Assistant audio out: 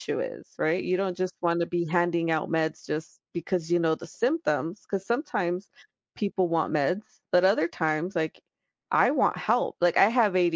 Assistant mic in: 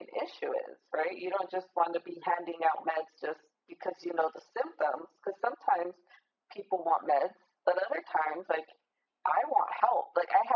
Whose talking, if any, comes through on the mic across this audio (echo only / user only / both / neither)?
echo only